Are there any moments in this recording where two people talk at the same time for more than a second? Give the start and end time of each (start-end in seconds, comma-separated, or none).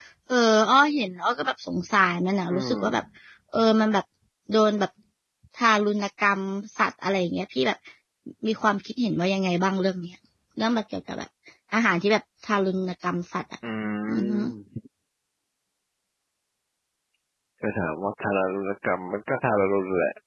none